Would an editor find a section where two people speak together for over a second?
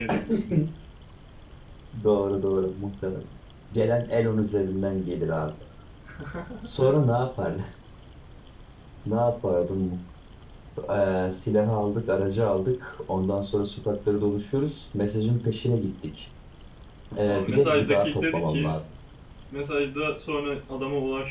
Yes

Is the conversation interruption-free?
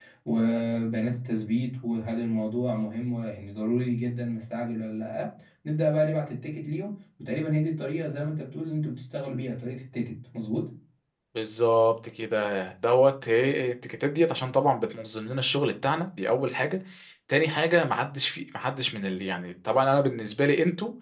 Yes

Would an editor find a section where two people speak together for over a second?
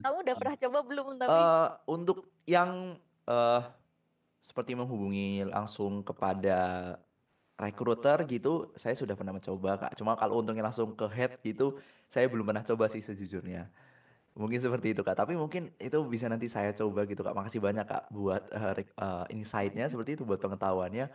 No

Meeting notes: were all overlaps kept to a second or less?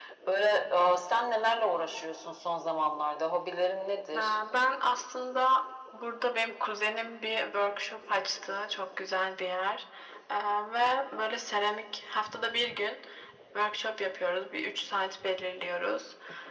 Yes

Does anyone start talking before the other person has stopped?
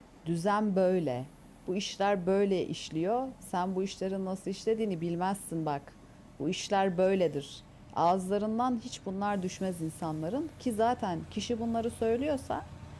No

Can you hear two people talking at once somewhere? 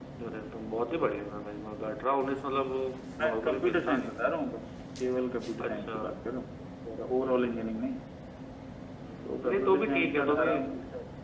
Yes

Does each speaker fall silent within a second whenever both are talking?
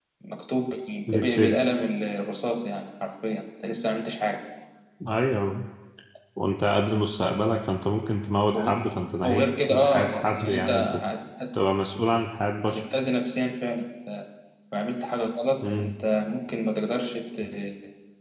No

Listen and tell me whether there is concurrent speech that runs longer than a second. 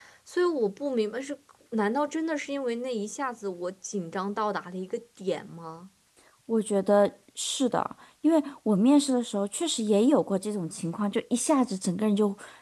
No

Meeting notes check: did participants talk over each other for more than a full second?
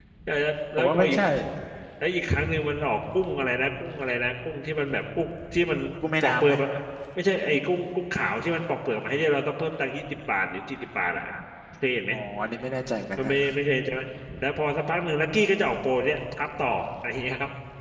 No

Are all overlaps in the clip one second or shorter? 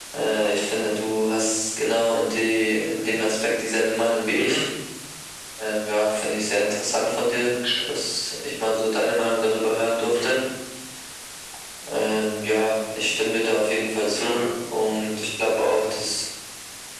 Yes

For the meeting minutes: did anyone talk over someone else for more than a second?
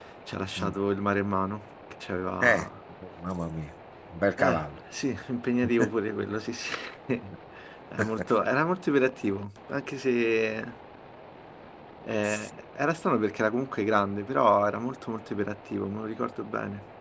No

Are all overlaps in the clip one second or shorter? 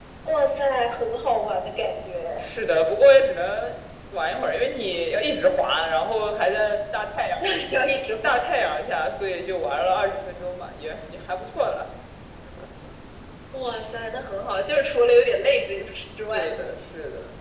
Yes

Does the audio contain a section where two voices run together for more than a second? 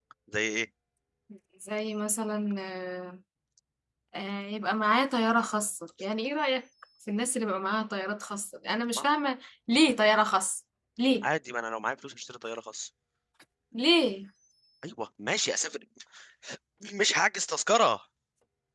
No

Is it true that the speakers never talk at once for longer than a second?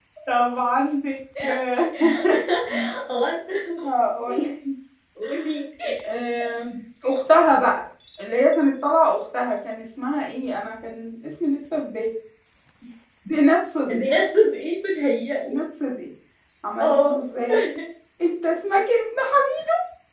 Yes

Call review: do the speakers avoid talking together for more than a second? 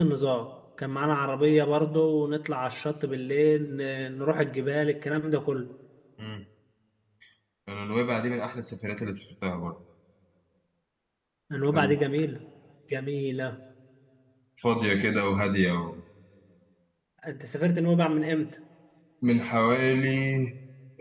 Yes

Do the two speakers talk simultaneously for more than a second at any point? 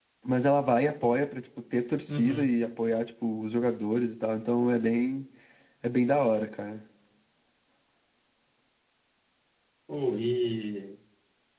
No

